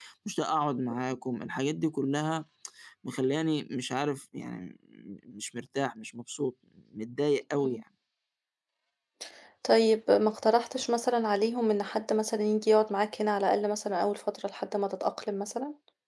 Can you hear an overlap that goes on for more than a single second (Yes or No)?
No